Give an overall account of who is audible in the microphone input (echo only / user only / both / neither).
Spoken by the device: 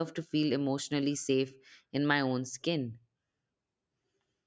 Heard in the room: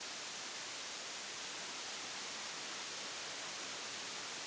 neither